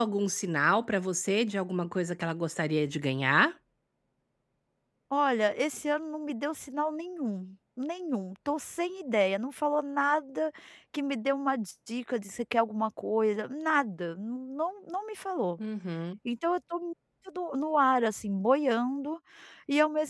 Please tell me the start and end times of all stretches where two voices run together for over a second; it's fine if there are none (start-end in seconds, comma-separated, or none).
none